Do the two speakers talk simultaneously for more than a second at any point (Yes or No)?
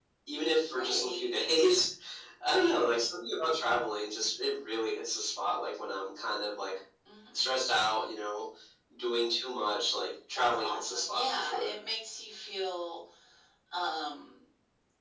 Yes